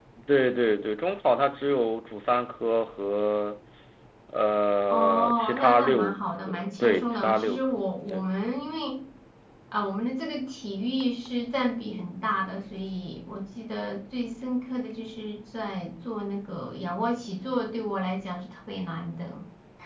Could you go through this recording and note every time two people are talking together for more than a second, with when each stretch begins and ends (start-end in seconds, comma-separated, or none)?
4.9-8.3